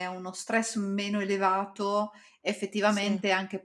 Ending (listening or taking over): listening